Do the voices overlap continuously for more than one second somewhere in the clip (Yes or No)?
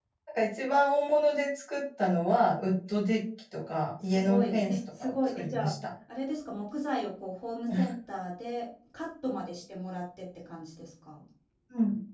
Yes